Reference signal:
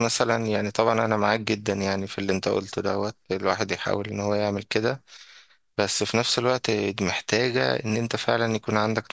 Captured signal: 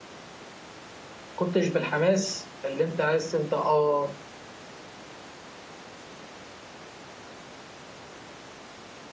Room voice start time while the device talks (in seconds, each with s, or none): 1.3 s